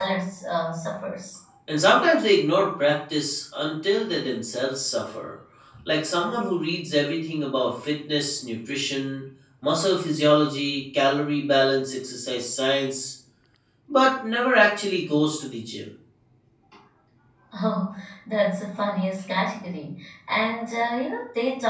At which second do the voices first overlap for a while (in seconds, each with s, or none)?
none